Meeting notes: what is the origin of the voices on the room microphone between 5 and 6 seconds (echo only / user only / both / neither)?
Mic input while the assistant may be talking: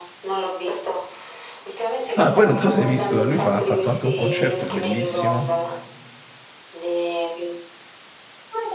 both